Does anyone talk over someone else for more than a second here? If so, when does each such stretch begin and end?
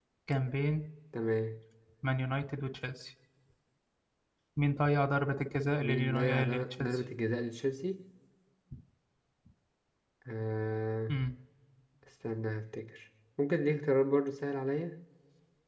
5.8-7.0

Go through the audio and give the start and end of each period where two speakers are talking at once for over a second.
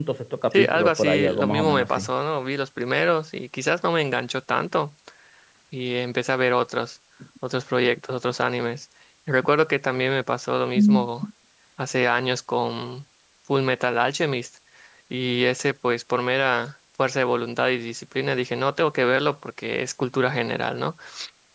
0.5-2.1

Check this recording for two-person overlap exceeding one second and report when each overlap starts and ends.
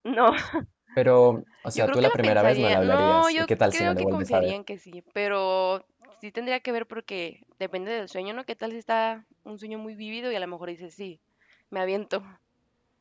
1.8-4.5

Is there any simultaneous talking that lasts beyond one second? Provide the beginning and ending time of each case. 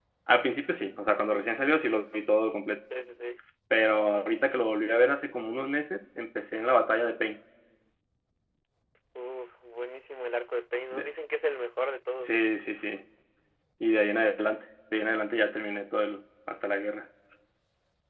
none

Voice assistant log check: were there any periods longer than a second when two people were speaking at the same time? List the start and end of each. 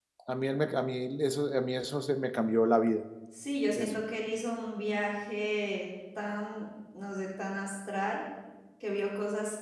none

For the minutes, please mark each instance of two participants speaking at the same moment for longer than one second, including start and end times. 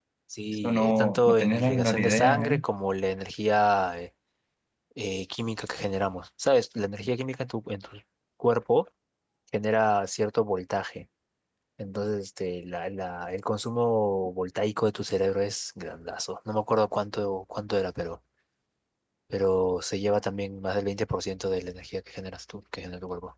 0.6-2.6

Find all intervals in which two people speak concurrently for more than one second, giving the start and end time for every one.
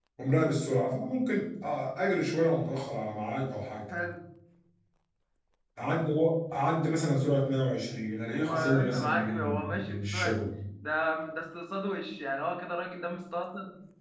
8.4-10.4

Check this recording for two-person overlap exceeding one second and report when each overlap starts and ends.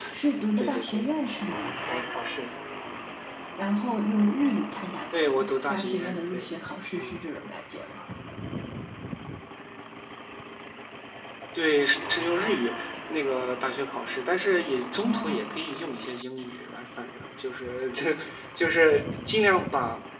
5.1-6.5

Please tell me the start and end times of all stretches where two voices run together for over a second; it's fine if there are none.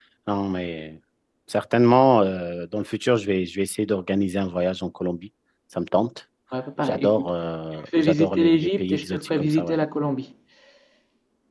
8.0-9.8

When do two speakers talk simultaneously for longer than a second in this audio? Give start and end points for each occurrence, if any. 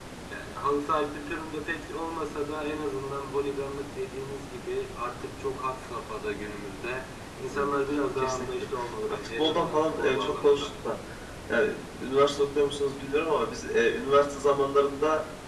9.1-10.6

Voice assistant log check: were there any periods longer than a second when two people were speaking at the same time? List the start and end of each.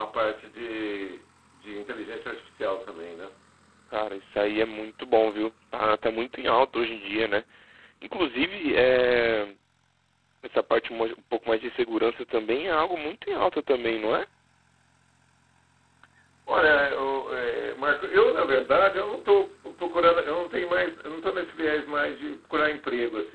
none

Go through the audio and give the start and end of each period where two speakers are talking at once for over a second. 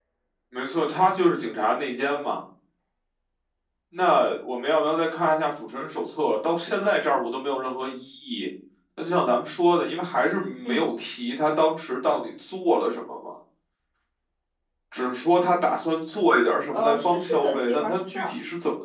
16.7-18.3

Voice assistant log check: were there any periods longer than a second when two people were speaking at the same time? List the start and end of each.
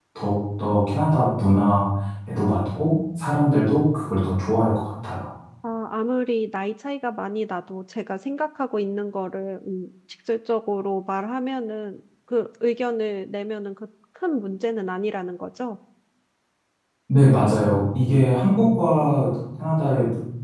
none

